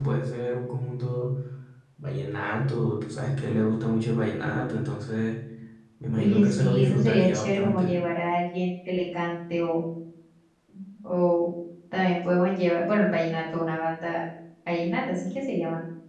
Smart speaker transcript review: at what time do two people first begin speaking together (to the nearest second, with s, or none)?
6 s